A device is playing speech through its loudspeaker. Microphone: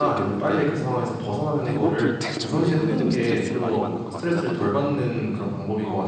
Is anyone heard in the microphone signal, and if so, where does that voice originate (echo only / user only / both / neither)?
both